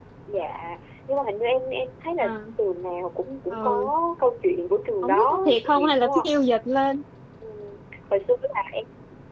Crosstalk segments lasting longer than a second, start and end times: 5.0-6.3

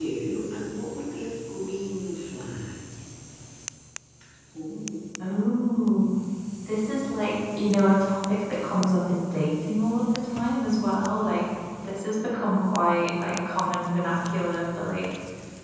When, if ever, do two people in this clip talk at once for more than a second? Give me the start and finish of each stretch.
none

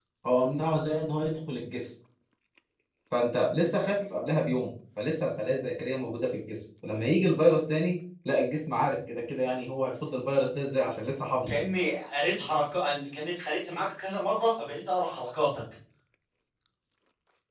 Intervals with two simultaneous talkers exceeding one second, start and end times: none

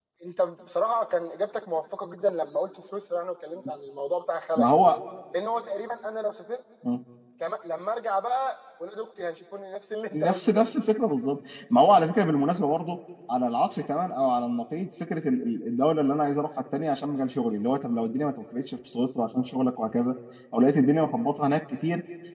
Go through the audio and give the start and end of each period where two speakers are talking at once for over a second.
none

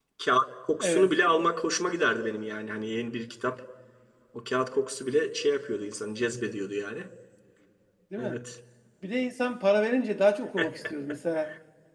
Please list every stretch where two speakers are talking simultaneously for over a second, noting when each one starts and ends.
none

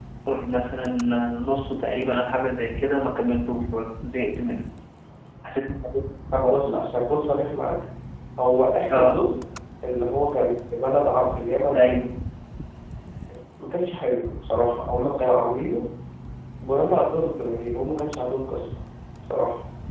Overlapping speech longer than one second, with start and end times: none

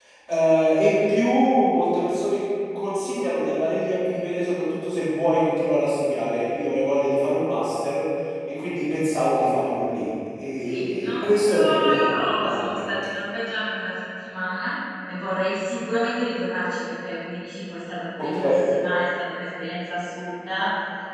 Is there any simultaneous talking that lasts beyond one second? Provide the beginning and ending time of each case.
10.6-12.9

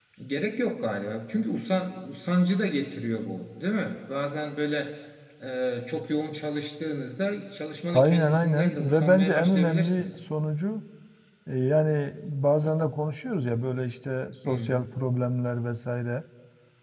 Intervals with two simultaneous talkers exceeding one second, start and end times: 7.9-10.1

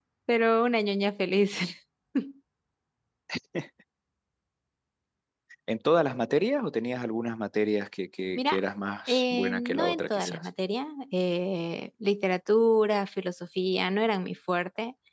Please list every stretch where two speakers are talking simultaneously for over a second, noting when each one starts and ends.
9.1-10.5

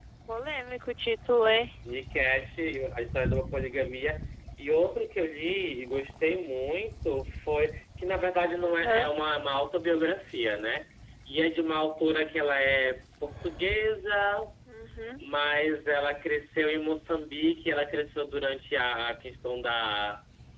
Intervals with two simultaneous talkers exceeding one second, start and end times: none

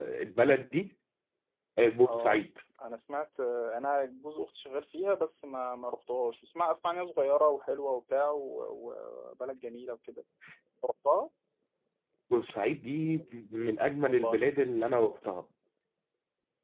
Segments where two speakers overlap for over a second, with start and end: none

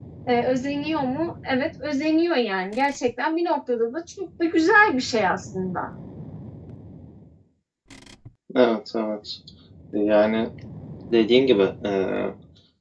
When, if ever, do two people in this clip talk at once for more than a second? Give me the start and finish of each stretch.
none

